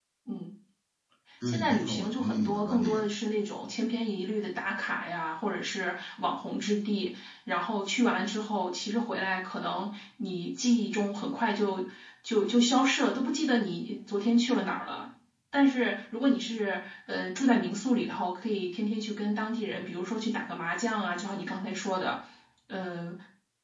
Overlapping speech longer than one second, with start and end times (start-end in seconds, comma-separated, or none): 1.4-3.1